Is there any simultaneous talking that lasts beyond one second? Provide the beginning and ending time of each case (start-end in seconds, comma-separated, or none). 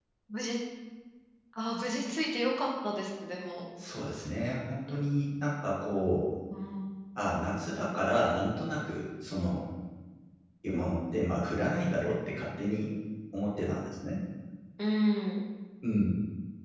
none